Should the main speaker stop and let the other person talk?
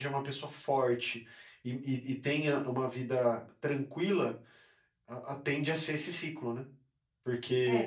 Yes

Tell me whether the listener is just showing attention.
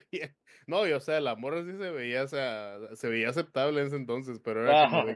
Yes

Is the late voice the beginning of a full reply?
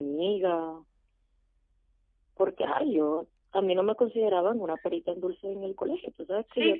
Yes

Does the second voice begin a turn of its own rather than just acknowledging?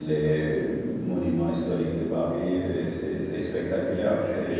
Yes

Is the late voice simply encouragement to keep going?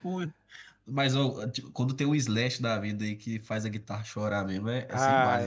No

